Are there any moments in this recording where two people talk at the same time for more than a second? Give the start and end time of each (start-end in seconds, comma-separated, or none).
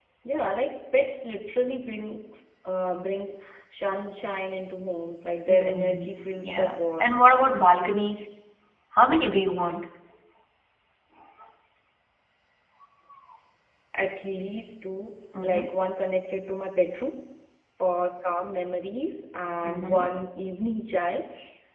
5.5-7.3